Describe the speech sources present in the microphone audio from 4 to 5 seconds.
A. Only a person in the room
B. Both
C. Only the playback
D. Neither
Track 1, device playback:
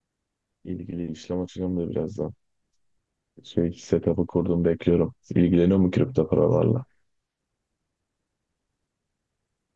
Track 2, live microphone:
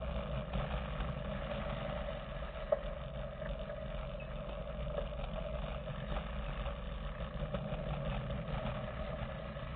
D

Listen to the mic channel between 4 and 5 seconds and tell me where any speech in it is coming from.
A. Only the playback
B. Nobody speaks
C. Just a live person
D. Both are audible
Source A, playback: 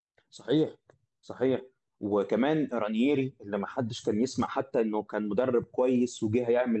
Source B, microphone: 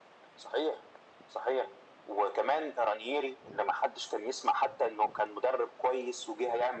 A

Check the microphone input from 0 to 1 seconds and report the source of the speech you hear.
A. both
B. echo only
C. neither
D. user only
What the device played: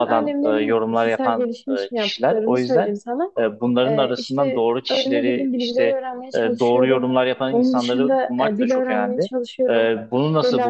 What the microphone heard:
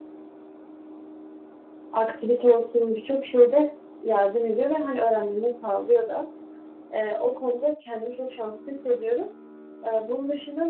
C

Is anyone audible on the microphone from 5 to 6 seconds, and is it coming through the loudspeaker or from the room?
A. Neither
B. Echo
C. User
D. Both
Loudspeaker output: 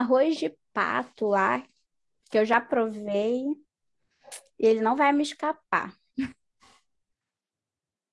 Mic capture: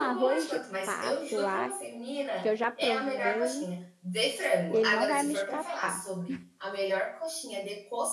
D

